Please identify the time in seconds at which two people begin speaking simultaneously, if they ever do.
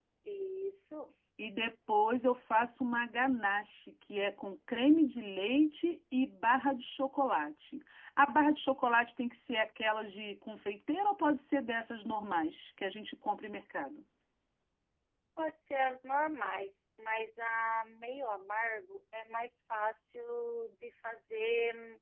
none

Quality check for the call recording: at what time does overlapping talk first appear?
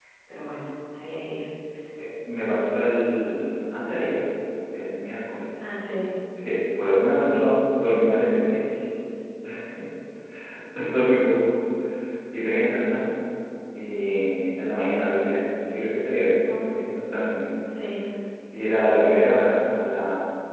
none

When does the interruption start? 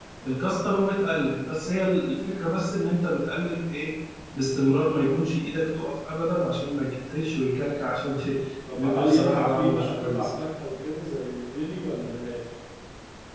9 s

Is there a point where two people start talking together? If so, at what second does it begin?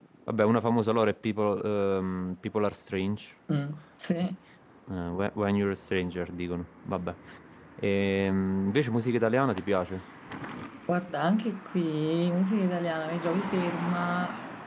none

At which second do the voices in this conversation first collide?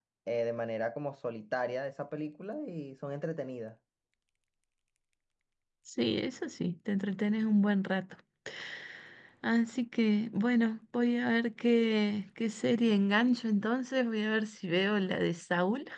none

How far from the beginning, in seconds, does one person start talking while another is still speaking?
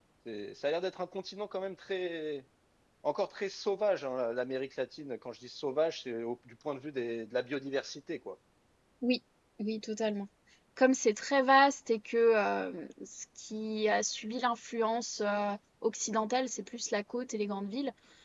none

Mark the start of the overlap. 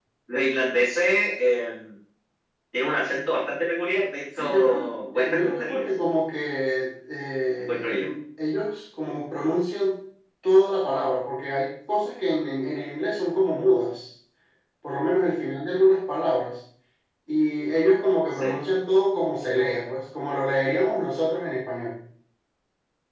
4 s

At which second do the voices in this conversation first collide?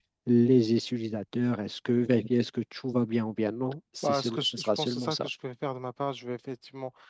4 s

